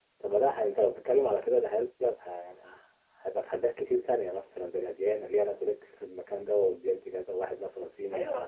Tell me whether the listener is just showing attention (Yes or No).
No